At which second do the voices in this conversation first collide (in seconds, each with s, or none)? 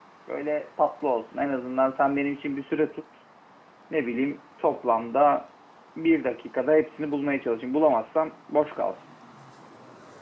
none